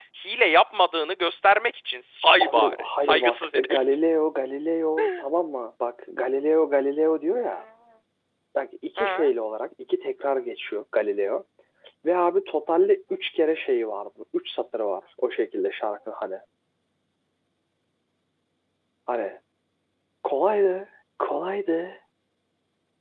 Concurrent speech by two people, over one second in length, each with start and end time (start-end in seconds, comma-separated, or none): 2.4-3.8